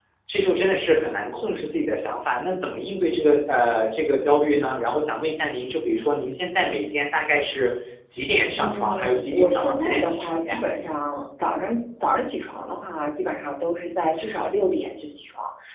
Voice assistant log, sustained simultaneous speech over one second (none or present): present